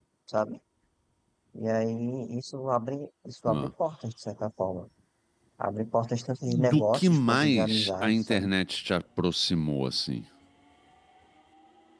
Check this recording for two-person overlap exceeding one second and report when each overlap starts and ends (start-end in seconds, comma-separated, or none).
6.7-8.5